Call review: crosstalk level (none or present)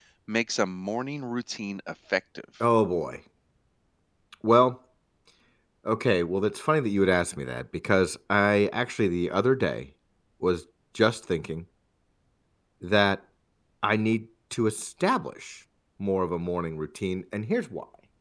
none